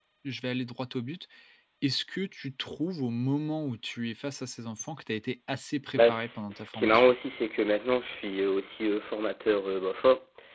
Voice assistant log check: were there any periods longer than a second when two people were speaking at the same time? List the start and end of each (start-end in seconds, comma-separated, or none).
5.9-7.1